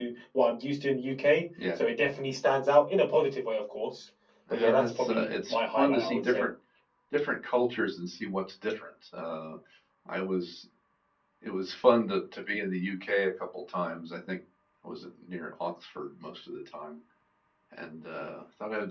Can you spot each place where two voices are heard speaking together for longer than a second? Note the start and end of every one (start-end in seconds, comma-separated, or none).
4.5-6.5